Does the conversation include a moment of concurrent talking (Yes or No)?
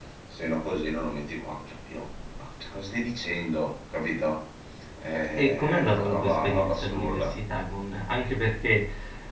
Yes